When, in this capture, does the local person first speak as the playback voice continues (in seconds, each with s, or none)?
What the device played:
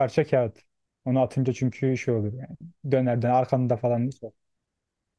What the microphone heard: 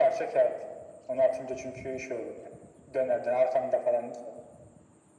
none